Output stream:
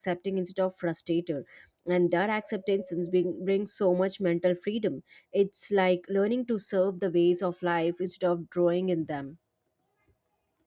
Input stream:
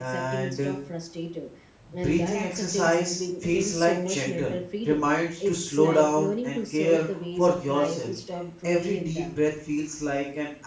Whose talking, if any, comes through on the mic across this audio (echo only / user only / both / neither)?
both